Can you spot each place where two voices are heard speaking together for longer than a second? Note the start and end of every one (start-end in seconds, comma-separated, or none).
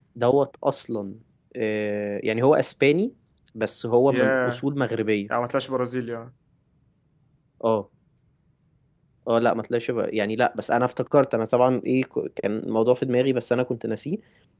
none